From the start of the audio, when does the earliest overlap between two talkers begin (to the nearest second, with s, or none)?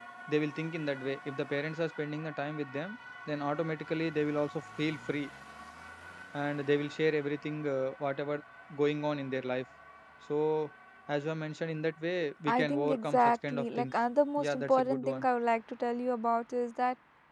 12 s